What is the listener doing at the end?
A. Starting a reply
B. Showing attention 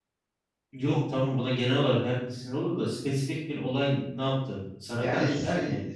A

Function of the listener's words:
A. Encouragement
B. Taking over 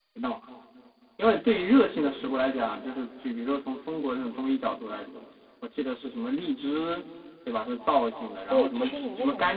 B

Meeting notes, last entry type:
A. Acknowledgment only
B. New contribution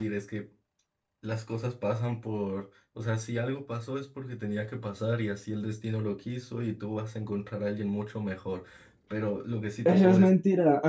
B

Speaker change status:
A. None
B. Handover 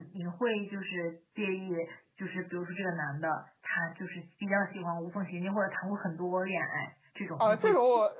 B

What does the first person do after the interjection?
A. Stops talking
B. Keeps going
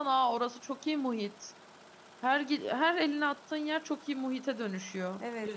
A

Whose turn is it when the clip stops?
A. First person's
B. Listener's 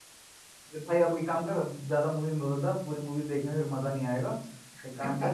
A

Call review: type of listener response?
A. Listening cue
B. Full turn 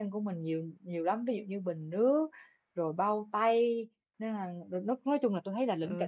B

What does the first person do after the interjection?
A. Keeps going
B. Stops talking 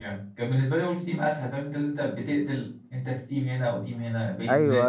B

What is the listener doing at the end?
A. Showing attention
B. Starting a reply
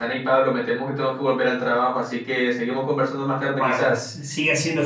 B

